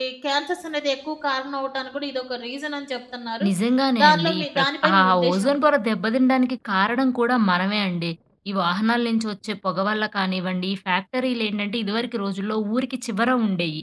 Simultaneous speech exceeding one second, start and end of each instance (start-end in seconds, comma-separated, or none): 4.0-5.5